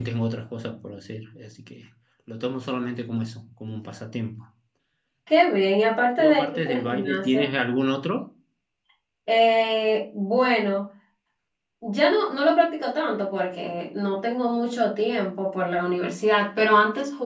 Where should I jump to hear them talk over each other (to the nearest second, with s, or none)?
6 s